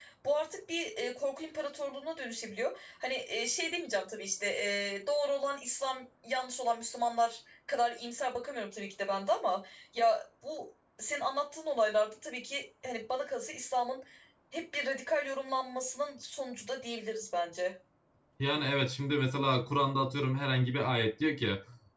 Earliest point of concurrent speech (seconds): none

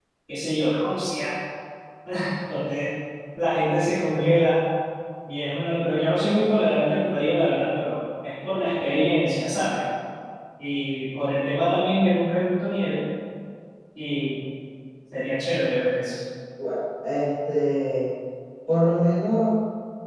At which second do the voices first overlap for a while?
none

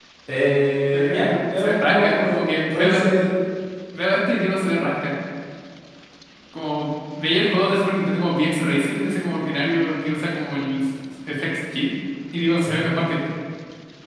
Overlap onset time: 0.9 s

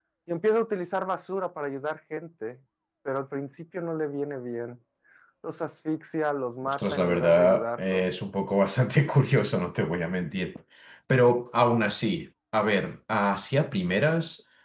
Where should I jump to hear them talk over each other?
6.6 s

